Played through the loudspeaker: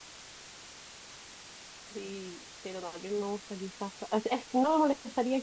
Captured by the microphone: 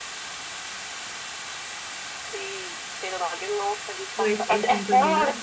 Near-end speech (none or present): present